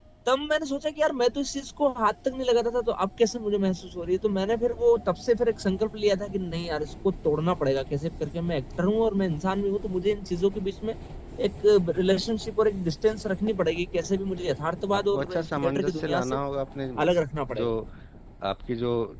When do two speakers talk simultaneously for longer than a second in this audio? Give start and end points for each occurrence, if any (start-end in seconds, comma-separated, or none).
15.0-16.4